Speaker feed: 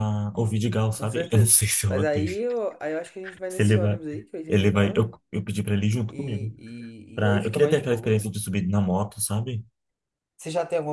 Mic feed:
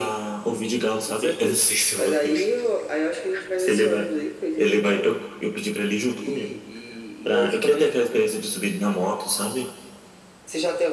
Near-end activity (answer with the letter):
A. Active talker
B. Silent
B